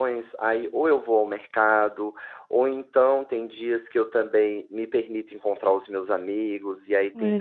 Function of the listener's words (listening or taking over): listening